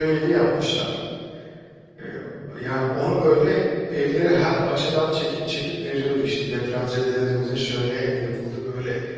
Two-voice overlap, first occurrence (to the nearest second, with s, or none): none